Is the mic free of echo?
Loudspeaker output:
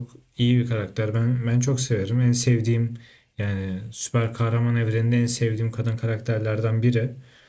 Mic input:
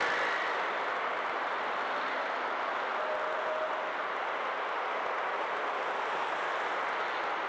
Yes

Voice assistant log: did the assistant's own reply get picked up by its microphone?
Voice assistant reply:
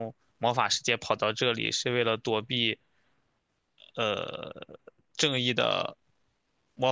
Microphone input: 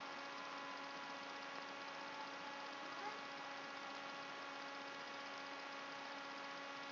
No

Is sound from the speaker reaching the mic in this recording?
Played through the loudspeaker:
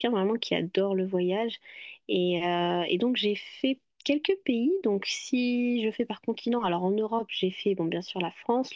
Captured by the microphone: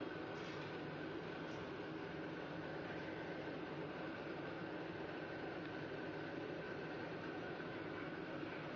No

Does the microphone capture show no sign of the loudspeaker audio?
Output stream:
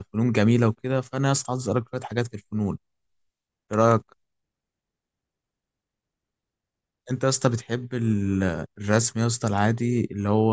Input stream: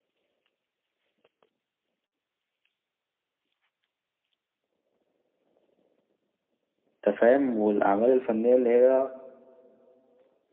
Yes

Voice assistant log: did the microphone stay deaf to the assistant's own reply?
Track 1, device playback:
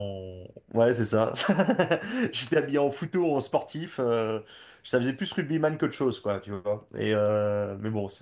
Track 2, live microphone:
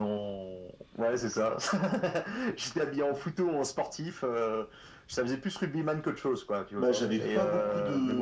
No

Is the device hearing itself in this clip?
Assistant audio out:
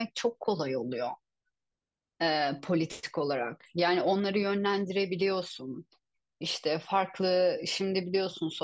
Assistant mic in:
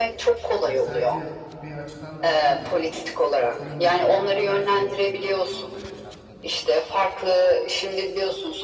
Yes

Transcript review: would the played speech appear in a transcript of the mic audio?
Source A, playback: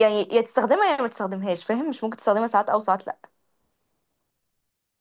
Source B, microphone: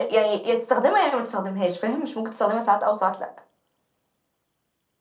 Yes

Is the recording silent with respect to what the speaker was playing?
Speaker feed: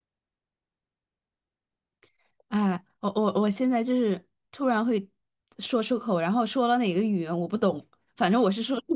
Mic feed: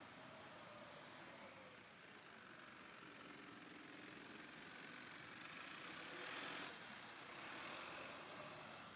Yes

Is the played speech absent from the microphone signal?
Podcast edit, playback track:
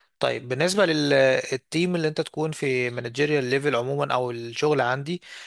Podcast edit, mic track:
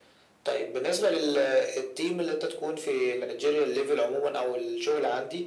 No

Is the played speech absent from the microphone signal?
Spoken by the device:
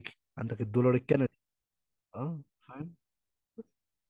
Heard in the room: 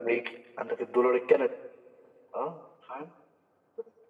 No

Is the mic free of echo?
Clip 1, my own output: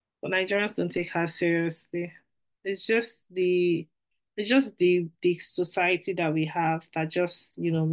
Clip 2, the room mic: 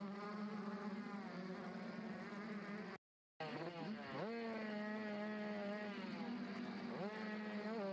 Yes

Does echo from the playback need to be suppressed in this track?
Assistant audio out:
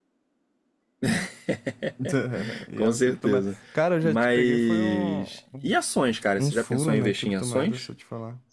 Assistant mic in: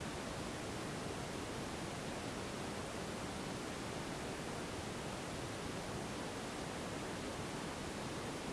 No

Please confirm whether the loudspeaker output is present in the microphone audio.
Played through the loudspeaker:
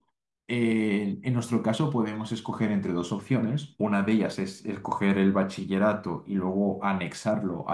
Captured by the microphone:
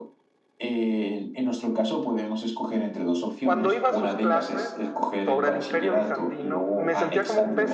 Yes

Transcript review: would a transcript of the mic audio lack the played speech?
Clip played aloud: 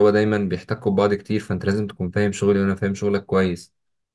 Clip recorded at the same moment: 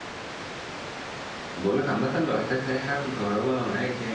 Yes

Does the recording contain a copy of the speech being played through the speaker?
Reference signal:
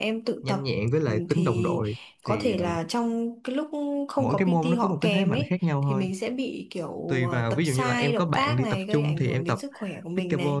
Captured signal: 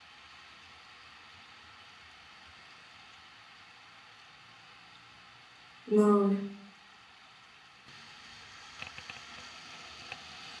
No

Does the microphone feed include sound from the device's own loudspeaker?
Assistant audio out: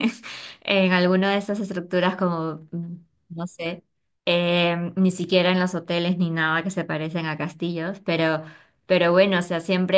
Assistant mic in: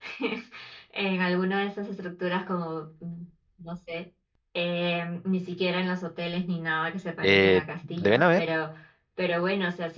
Yes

